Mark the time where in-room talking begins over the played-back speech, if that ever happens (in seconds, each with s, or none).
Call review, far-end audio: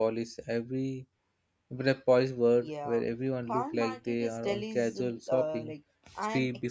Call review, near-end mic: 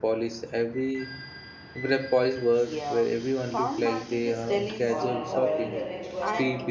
4.8 s